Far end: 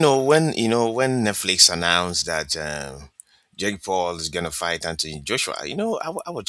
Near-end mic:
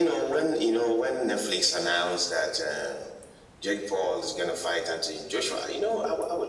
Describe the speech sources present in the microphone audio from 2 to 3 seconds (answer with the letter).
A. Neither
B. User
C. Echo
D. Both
C